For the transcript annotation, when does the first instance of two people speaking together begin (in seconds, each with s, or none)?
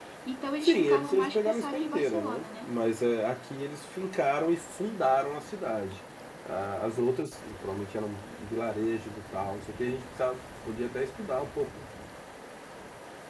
0.6 s